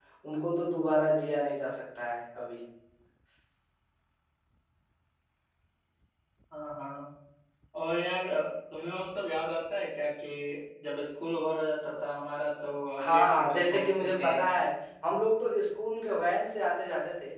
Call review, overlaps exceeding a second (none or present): present